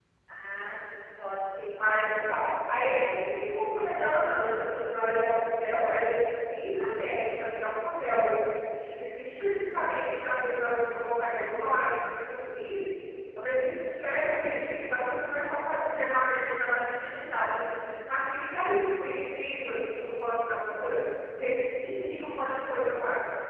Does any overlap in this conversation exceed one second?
No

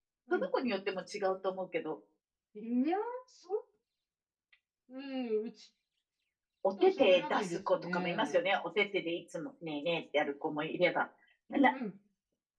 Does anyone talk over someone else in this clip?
Yes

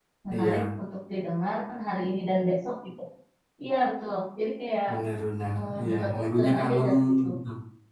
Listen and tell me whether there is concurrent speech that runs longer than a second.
Yes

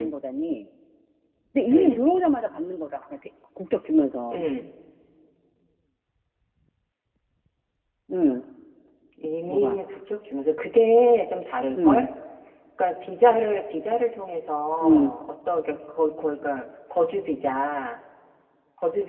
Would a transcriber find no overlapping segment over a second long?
Yes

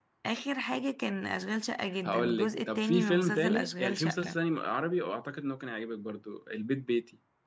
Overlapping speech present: Yes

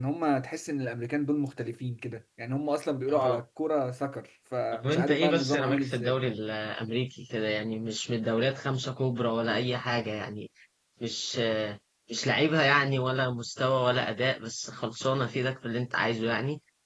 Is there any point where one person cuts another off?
Yes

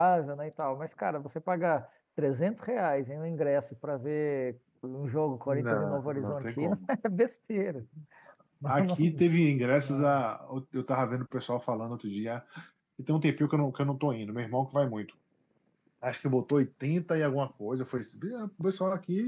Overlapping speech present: Yes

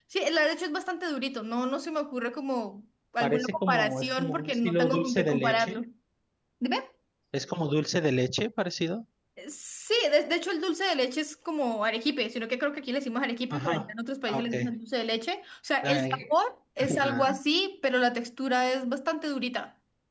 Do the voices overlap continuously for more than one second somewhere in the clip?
Yes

